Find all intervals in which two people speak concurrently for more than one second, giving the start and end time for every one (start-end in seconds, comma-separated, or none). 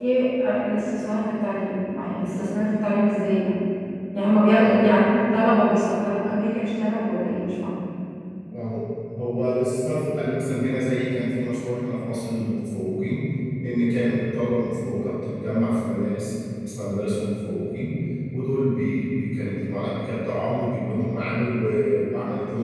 none